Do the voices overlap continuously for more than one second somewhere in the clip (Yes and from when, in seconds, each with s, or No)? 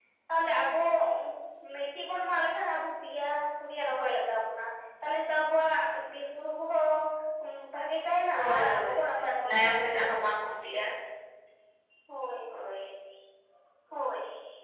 Yes, from 8.4 s